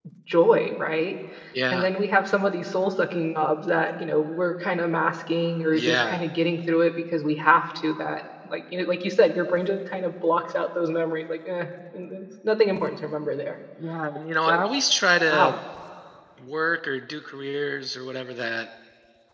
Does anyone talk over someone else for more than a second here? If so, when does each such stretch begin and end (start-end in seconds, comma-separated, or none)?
none